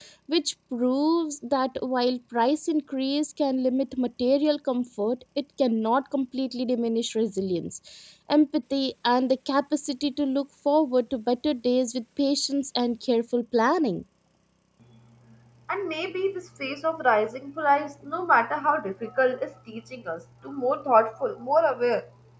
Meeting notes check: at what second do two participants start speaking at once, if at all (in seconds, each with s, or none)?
none